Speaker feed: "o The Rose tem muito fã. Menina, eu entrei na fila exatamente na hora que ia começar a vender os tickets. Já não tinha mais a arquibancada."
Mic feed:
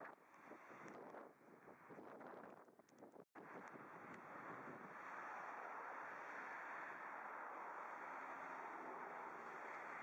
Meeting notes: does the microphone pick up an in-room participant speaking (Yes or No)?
No